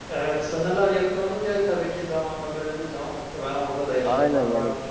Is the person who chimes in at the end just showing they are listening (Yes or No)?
No